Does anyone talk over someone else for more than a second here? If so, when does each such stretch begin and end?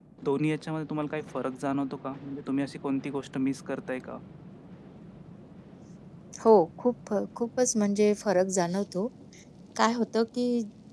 none

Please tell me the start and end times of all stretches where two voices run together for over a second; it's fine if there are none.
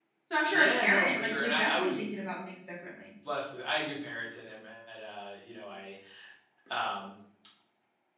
0.5-2.0

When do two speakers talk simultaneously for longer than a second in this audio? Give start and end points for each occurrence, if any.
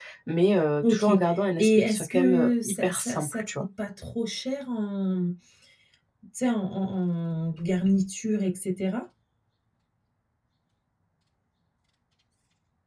0.9-3.5

